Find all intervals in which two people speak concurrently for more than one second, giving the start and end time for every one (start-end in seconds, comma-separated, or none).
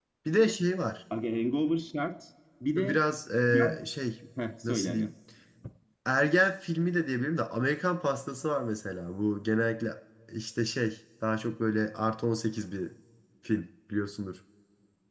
none